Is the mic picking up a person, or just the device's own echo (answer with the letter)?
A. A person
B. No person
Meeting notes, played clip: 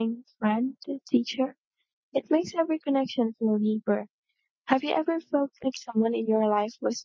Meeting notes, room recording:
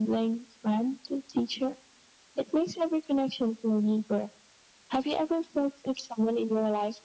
B